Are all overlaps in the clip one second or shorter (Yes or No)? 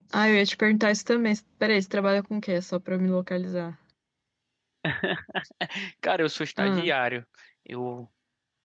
Yes